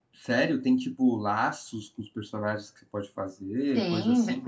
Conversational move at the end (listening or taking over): taking over